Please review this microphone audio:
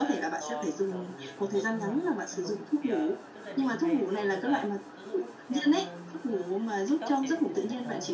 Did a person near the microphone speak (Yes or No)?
Yes